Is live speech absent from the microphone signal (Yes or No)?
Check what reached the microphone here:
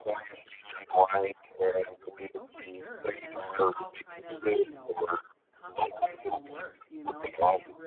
No